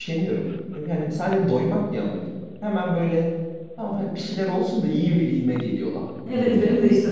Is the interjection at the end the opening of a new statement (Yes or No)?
Yes